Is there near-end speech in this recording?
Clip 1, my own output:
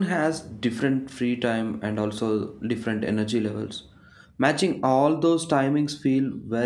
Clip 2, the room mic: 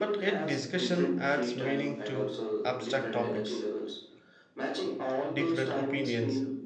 Yes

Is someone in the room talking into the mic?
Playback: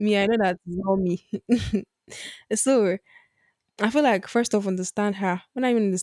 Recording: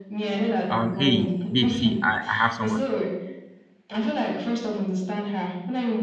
Yes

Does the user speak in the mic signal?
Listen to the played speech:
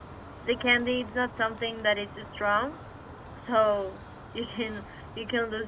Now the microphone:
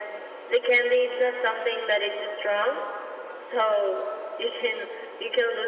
No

